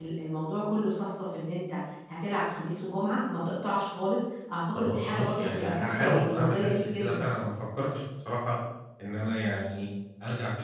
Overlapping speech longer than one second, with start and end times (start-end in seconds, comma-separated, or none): 4.8-7.3